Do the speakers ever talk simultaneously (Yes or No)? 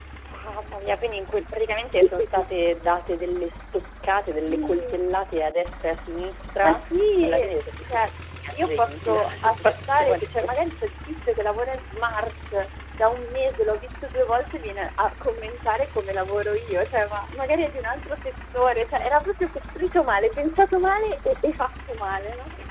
Yes